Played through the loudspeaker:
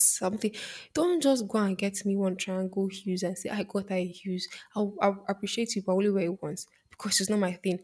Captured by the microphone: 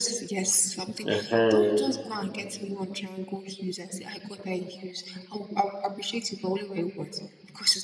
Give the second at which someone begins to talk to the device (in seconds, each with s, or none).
1.1 s